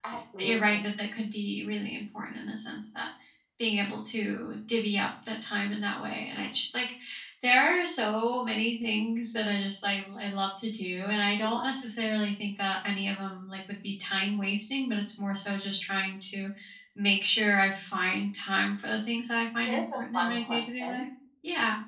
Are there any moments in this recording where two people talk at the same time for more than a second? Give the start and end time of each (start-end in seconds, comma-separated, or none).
19.7-21.0